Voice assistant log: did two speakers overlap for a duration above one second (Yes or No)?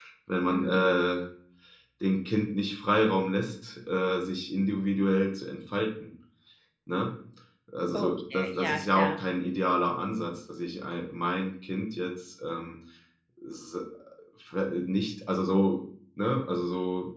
Yes